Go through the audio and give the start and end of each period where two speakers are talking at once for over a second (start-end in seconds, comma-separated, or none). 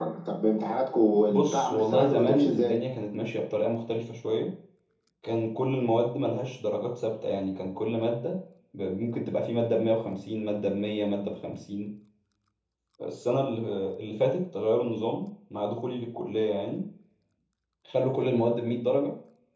1.3-2.8